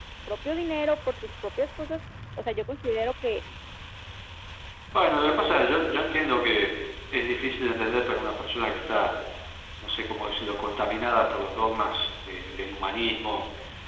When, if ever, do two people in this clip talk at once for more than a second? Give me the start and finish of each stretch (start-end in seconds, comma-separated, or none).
none